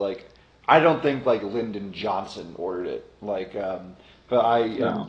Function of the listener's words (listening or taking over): listening